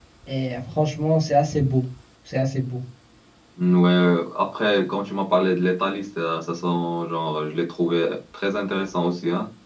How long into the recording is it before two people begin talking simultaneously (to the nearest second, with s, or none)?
none